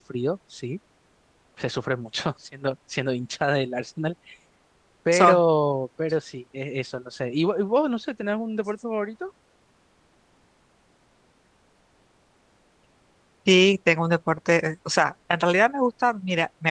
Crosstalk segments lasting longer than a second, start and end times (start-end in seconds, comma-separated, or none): none